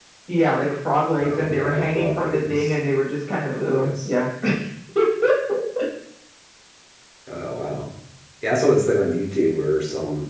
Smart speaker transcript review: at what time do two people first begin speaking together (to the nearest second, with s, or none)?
1 s